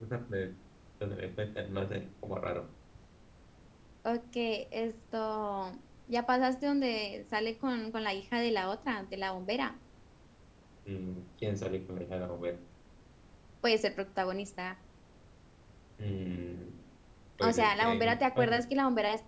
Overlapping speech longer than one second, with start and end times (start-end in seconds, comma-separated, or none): 17.4-18.6